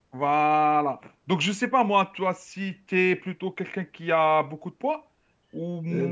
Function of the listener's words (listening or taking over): taking over